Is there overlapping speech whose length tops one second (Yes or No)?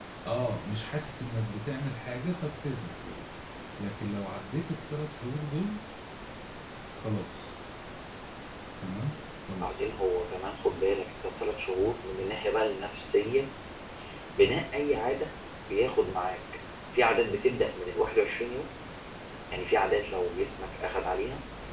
No